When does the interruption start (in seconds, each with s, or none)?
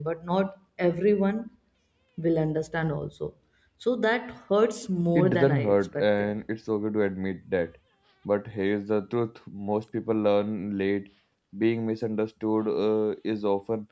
5.1 s